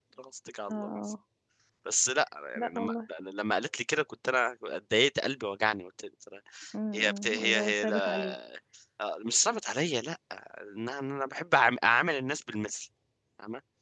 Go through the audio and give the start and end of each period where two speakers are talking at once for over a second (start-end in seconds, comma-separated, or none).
6.9-8.3